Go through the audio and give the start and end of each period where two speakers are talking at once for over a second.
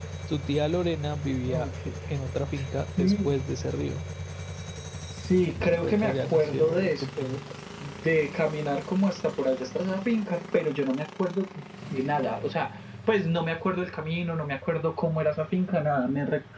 5.8-7.4

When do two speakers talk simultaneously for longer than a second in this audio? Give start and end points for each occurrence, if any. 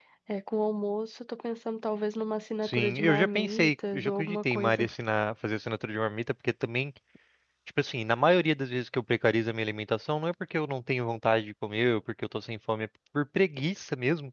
2.6-4.9

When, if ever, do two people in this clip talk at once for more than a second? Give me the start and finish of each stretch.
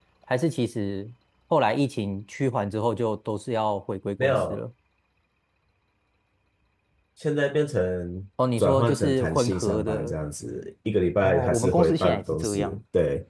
8.6-10.2, 11.2-12.8

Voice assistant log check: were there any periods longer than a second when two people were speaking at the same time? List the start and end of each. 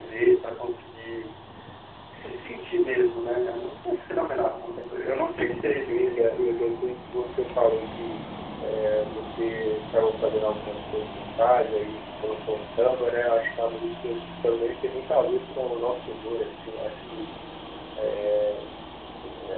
5.4-6.6

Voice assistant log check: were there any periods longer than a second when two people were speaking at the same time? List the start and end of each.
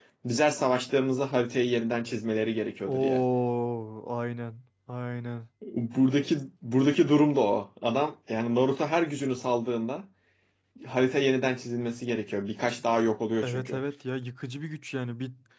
none

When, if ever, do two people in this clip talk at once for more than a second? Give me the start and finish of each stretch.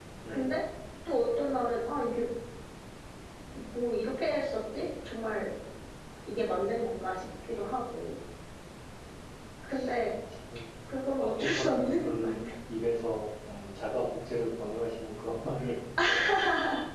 11.2-12.4

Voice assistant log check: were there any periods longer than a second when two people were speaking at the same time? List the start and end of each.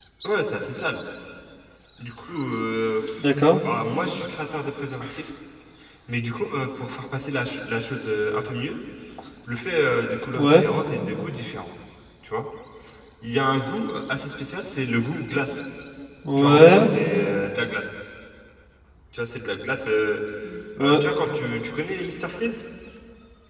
none

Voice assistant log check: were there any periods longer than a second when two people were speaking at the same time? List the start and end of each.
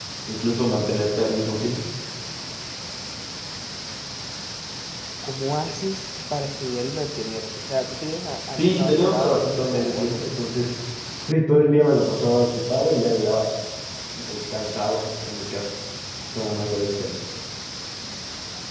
8.6-10.3

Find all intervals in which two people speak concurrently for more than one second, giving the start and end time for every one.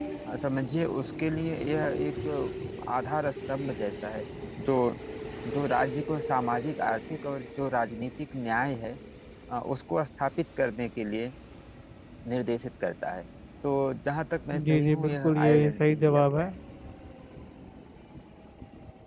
14.7-16.5

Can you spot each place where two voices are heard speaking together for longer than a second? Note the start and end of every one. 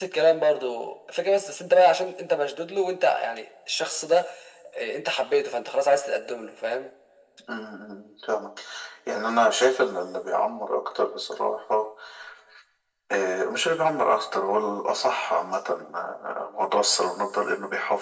none

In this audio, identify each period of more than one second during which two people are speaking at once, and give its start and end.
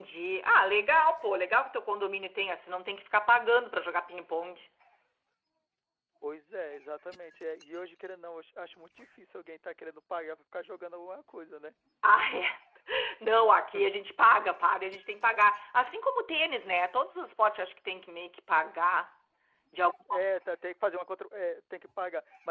none

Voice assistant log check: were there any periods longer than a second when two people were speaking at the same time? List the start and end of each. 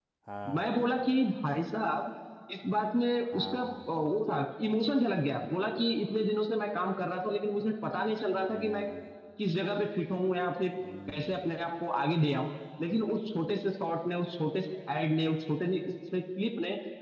none

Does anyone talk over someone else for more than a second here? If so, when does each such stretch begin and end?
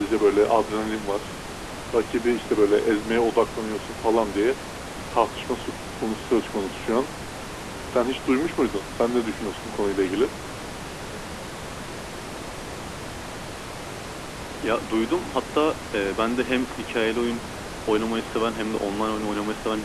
none

